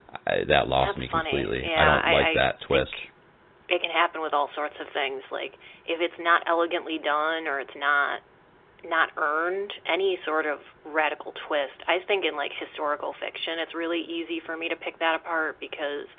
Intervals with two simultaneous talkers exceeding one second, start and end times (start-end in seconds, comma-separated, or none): 0.8-3.0